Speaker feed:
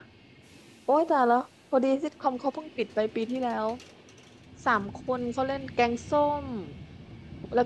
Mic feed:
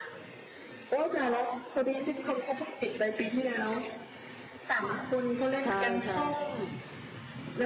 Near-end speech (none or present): present